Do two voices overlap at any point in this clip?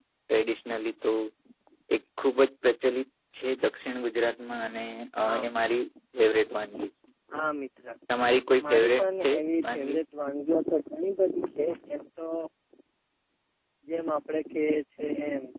Yes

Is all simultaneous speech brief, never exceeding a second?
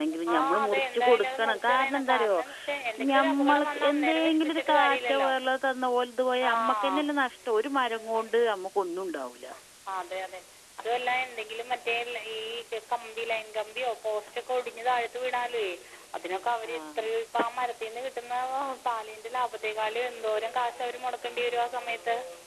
No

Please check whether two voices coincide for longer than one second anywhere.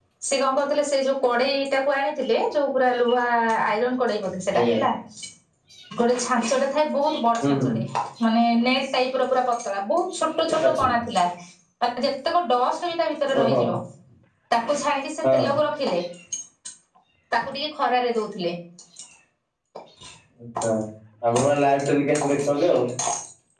No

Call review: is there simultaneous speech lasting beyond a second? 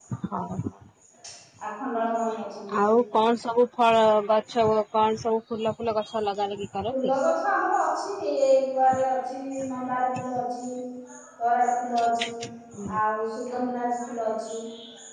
No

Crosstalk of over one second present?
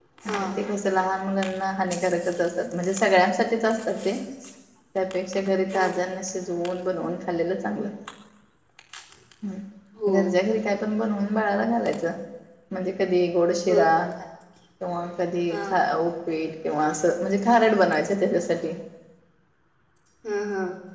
No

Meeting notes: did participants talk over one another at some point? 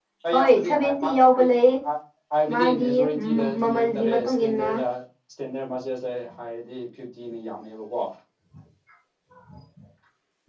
Yes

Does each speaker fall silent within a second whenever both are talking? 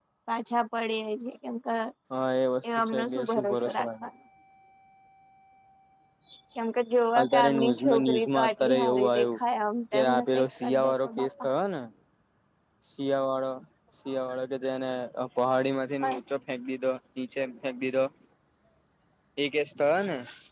No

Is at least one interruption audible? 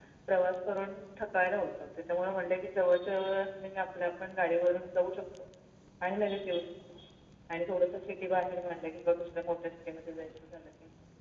No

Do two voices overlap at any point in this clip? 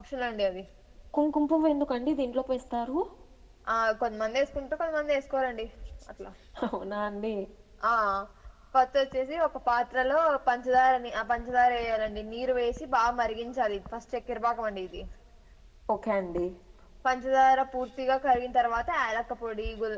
No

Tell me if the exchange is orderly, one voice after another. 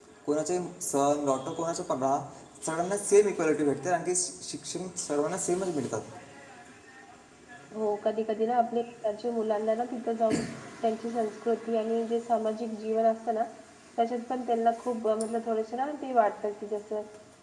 Yes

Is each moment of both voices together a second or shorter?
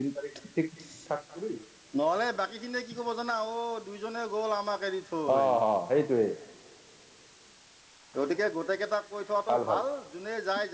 Yes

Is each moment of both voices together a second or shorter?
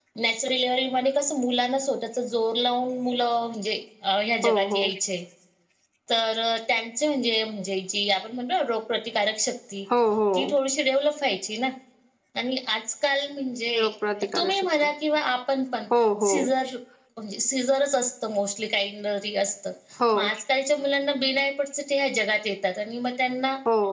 Yes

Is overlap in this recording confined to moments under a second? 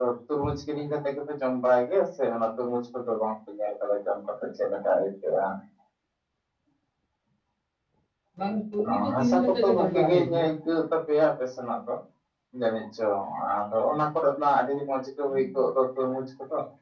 No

